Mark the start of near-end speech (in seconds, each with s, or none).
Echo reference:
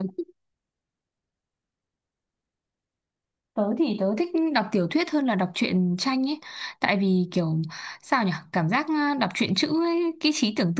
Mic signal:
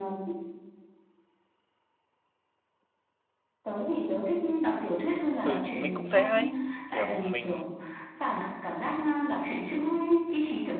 5.4 s